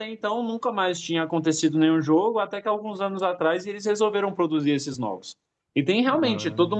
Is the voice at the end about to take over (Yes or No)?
No